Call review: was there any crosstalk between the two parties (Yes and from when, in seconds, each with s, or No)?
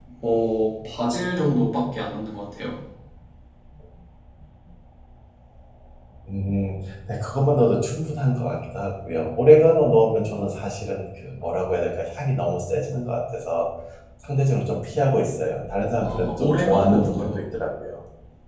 Yes, from 16.1 s